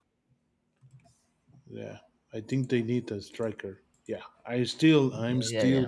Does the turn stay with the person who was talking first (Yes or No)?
No